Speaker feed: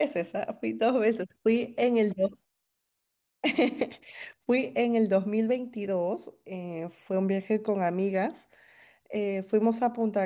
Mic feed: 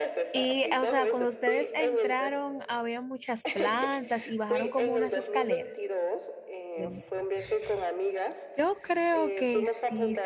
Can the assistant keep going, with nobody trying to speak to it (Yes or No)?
No